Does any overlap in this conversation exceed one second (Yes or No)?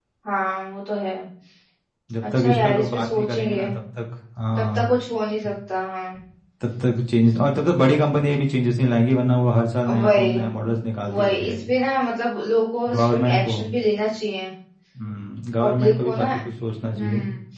Yes